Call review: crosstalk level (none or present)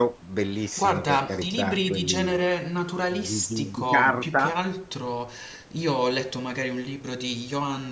present